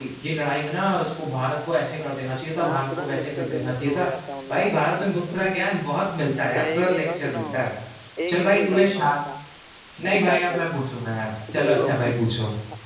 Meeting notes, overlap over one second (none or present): present